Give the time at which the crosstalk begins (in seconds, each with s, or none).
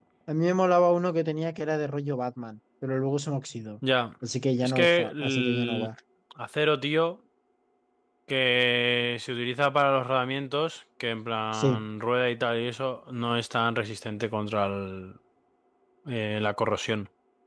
4.6 s